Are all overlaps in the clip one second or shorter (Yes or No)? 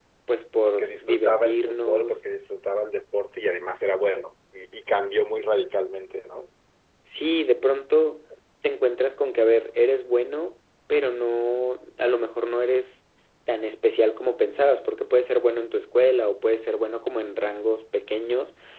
No